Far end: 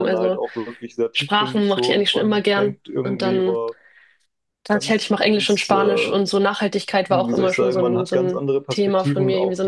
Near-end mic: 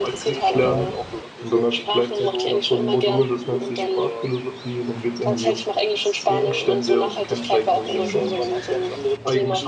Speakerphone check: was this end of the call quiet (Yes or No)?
No